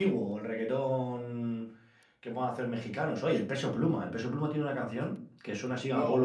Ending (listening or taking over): listening